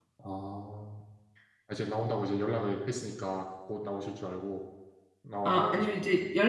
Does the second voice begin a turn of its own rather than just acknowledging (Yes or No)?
Yes